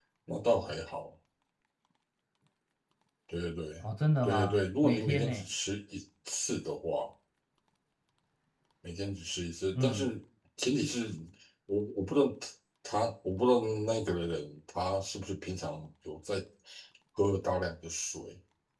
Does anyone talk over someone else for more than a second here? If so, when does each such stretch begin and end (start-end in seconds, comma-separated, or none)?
4.2-5.5